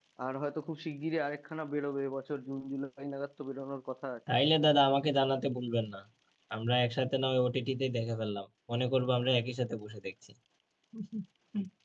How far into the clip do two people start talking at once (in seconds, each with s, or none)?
none